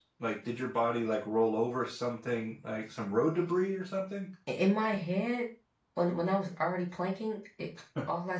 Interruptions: none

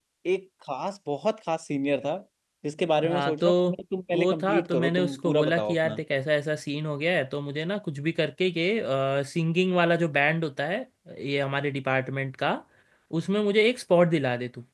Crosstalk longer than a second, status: present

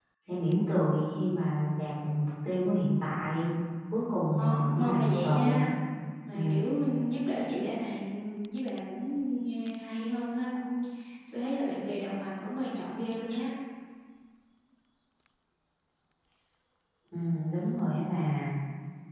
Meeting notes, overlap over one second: present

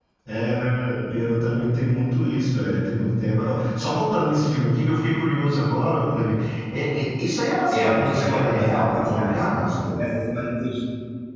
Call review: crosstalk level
present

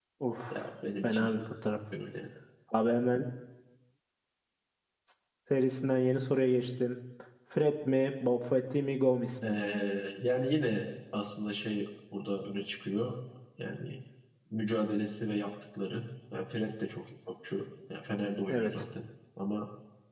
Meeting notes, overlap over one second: none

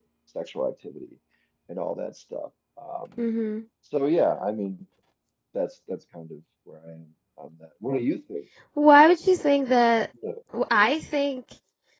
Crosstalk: none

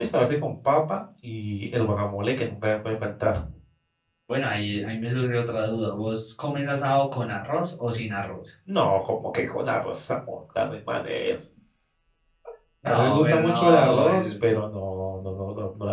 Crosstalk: present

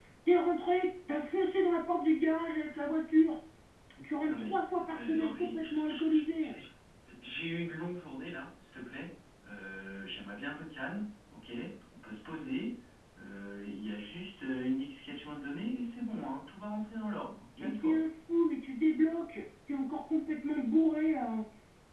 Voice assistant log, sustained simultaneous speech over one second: present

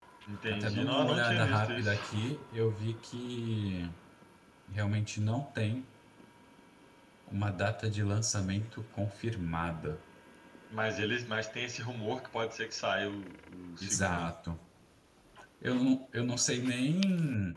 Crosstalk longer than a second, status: present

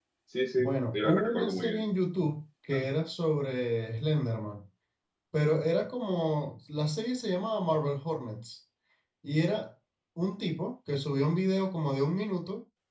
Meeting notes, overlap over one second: present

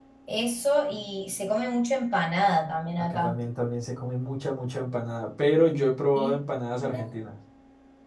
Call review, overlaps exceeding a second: none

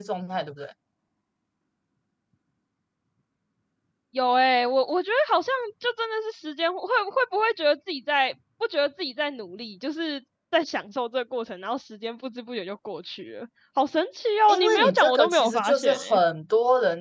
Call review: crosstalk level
present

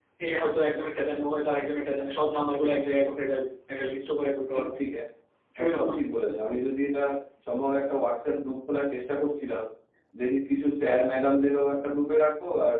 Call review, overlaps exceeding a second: none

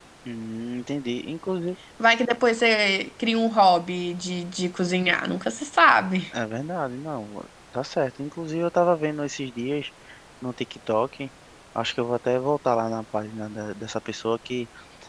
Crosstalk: none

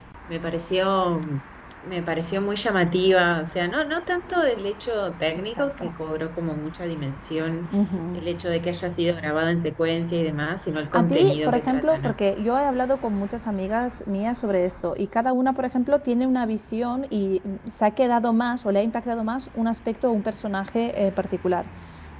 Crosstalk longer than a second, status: present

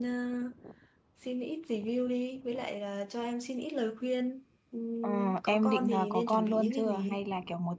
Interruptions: present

